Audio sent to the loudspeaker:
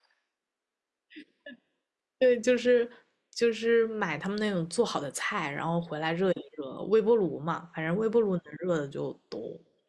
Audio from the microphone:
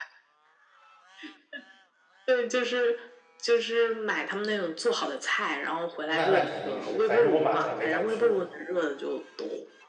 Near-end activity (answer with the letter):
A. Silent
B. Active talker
B